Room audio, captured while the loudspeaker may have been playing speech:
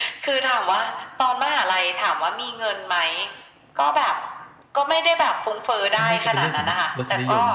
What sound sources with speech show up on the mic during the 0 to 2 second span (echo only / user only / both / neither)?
echo only